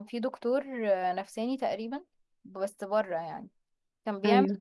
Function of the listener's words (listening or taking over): listening